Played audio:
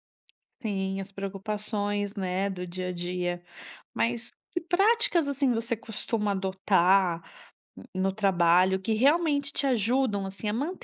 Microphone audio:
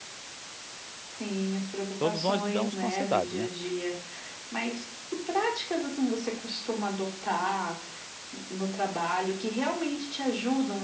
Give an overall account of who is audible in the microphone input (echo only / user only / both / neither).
both